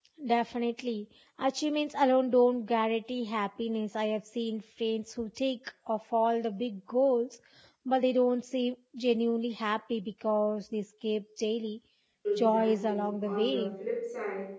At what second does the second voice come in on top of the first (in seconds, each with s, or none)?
12.4 s